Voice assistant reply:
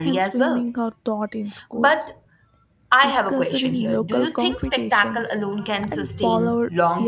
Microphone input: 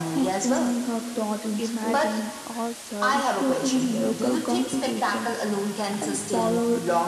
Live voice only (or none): imagining ourselves